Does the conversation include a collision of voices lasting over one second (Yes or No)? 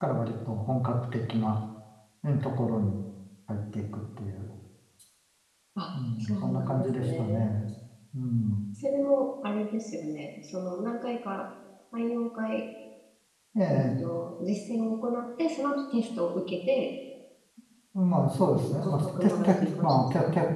Yes